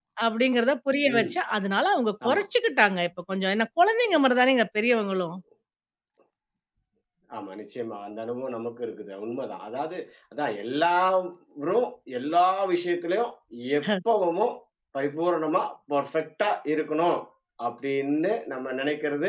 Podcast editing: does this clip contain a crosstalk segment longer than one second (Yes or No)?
No